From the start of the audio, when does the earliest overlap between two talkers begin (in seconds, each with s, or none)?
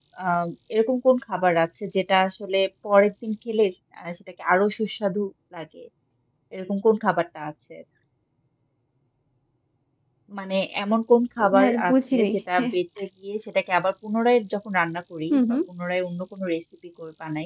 11.4 s